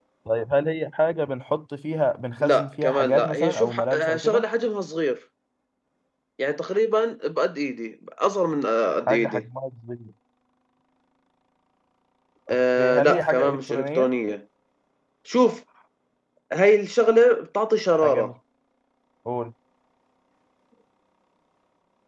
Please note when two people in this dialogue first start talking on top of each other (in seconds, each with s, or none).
2.4 s